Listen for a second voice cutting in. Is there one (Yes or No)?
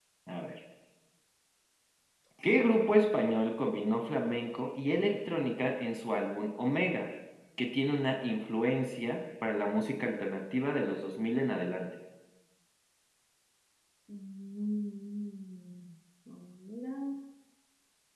No